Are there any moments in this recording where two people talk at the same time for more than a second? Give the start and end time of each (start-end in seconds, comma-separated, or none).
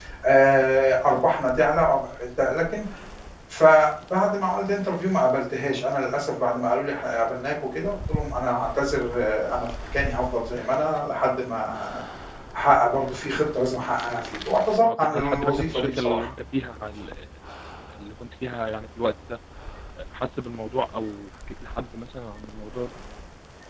14.8-16.3